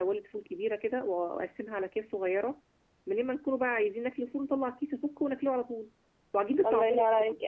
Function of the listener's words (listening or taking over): taking over